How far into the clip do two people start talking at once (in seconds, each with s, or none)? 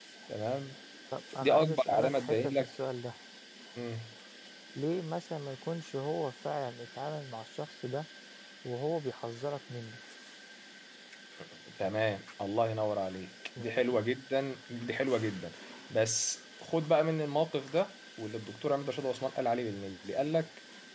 1.4 s